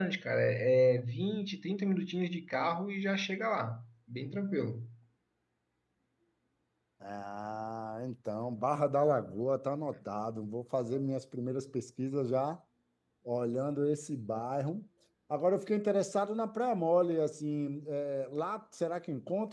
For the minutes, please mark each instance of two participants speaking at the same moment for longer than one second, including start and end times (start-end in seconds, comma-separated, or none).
none